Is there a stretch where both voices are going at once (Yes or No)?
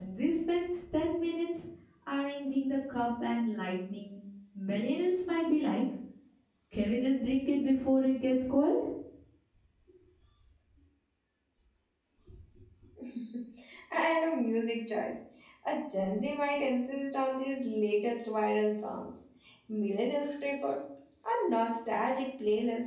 No